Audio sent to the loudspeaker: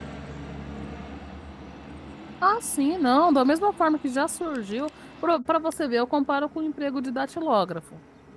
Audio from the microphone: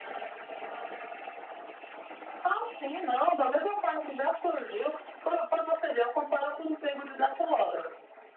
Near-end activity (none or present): none